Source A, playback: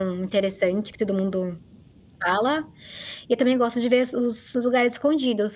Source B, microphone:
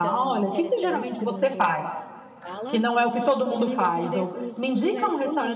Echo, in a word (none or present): present